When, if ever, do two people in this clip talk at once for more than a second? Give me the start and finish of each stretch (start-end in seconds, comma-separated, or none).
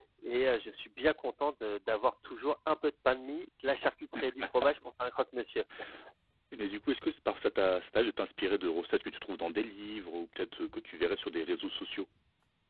none